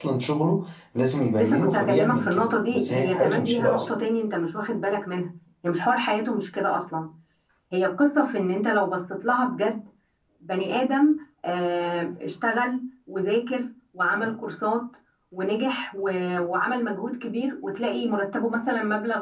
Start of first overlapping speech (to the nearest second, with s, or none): 1 s